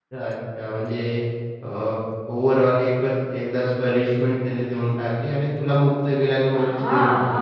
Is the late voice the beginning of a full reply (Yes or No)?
Yes